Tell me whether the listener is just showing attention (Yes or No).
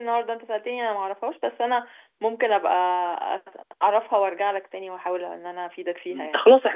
No